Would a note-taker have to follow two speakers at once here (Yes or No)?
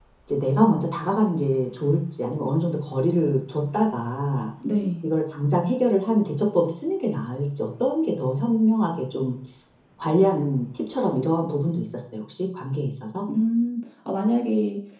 No